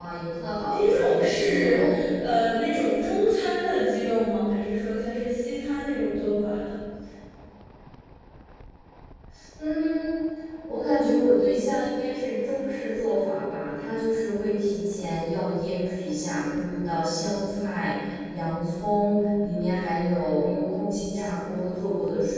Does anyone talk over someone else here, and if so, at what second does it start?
0.7 s

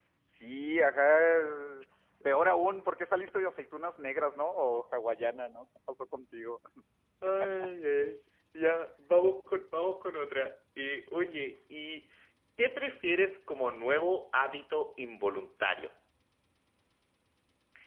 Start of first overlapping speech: none

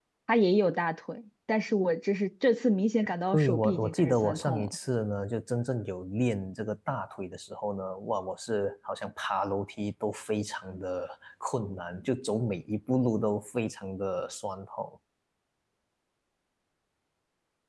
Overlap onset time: 3.3 s

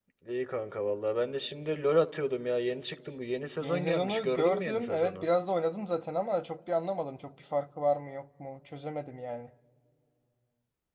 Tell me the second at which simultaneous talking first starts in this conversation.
3.6 s

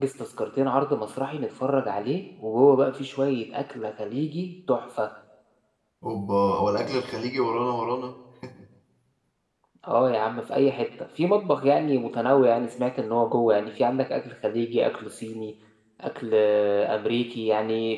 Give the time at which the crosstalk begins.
none

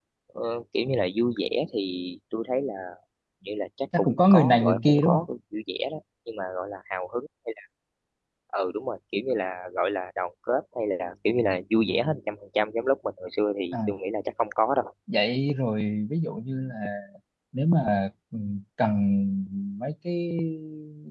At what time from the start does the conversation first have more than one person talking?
4.0 s

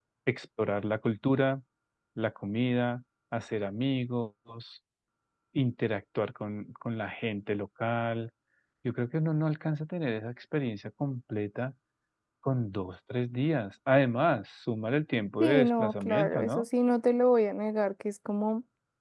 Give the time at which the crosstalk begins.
15.4 s

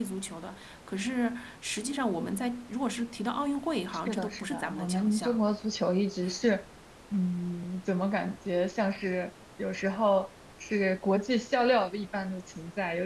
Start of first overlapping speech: 3.9 s

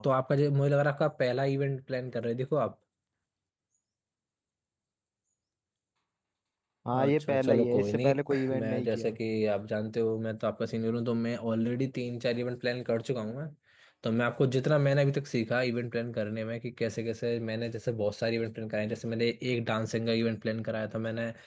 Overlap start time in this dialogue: 6.9 s

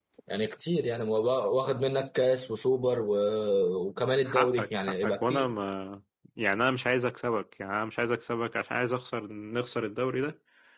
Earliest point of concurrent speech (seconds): 4.3 s

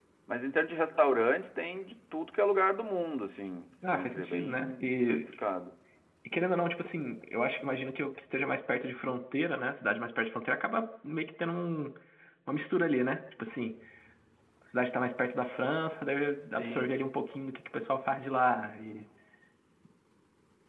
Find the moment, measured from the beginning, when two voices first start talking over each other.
3.9 s

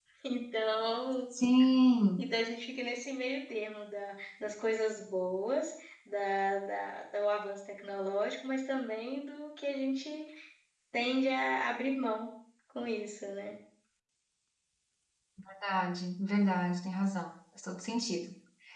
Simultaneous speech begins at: none

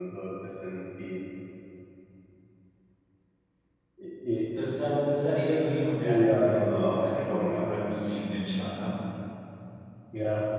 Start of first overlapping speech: 6.0 s

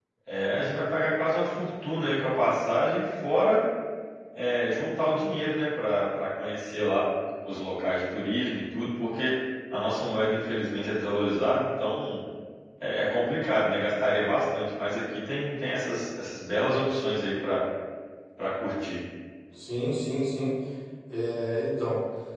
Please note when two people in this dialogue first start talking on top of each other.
none

